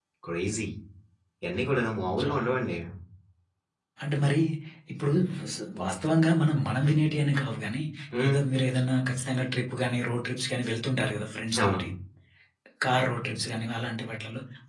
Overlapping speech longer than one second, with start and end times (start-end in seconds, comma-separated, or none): none